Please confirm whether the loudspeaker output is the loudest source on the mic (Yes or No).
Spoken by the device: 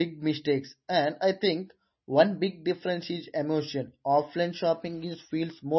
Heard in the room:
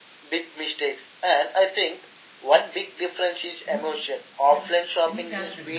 Yes